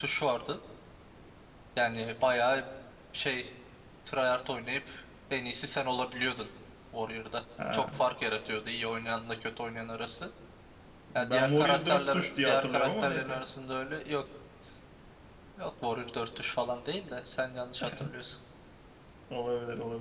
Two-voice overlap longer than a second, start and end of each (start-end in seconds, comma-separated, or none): 11.2-13.4